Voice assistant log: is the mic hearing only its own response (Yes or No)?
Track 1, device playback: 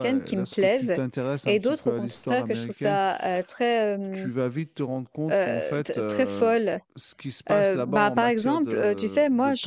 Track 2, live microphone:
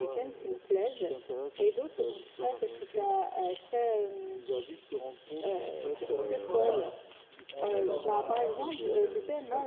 No